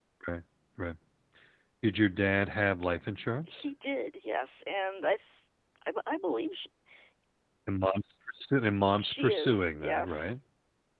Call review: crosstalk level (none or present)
present